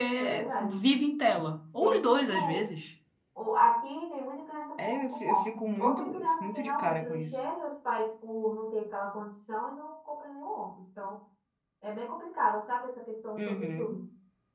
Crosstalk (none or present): present